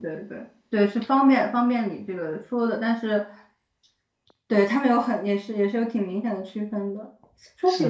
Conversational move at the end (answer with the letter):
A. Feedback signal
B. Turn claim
A